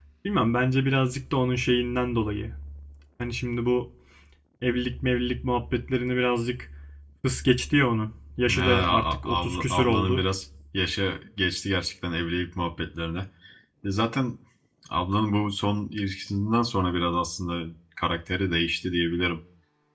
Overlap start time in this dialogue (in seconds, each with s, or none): 8.5 s